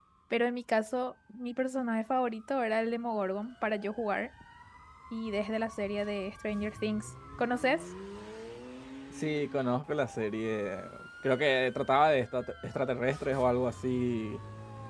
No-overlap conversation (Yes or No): Yes